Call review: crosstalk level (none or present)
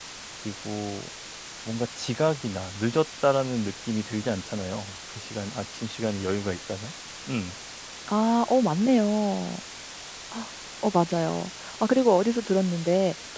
none